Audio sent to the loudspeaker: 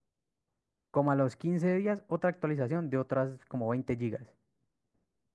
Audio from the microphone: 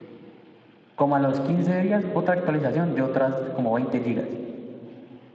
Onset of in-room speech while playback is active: none

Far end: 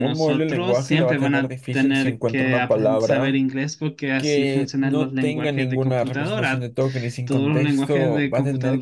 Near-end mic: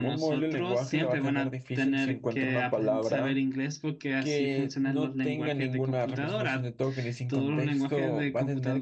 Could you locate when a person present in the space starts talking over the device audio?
none

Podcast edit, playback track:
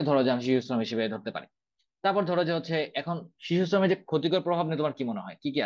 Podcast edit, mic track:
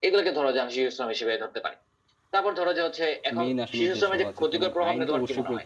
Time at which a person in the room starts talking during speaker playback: 3.4 s

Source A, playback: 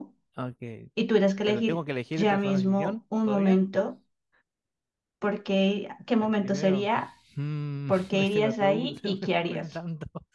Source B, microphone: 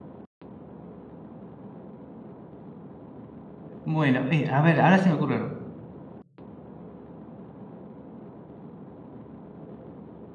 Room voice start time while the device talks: 3.8 s

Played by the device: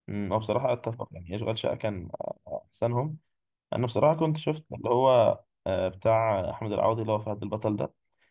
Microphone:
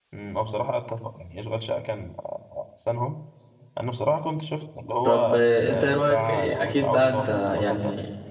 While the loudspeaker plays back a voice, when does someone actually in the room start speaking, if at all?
5.0 s

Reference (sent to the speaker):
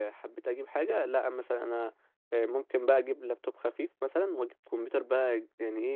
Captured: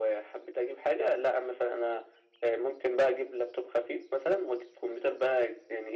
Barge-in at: none

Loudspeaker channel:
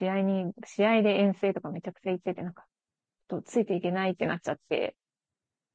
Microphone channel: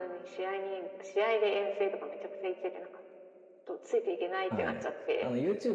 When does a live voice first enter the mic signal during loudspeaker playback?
4.5 s

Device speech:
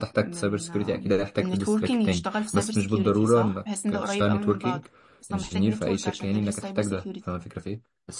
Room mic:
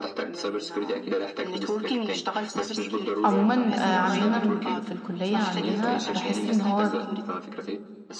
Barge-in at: 3.2 s

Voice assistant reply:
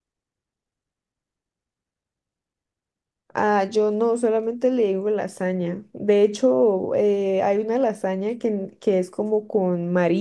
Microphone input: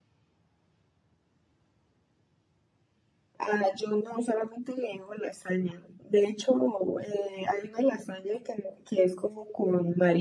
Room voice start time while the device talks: none

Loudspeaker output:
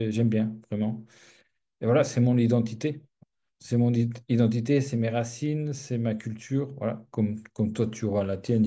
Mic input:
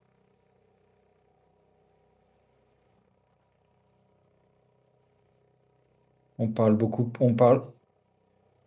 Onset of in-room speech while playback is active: 6.4 s

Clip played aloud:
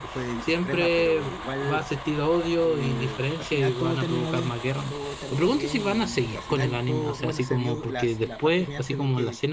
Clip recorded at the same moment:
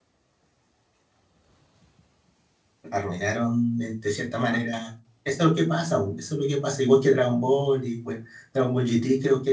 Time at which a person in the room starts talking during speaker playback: 2.9 s

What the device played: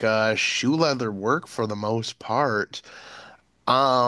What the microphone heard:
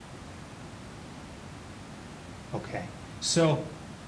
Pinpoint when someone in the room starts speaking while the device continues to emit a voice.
2.5 s

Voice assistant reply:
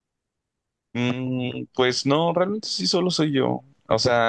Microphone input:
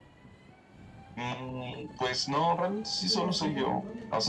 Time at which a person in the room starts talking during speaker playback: 3.0 s

